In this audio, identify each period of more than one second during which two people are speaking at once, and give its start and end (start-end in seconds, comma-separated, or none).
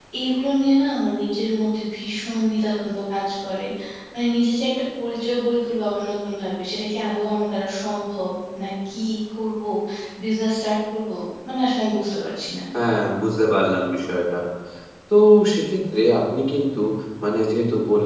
none